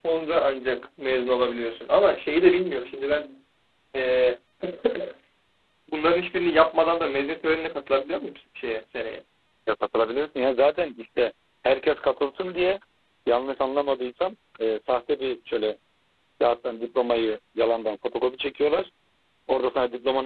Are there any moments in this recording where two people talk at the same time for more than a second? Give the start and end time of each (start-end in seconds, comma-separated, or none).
none